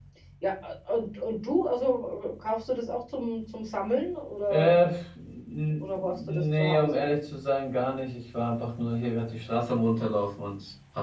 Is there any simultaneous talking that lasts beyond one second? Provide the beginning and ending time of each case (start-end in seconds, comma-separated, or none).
5.8-7.3